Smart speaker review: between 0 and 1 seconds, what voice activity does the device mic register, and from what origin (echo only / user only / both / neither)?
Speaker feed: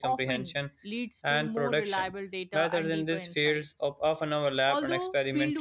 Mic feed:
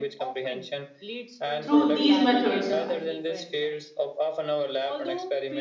echo only